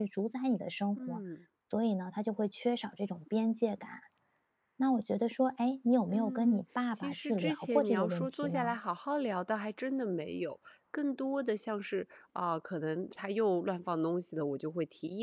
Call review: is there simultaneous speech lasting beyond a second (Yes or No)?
Yes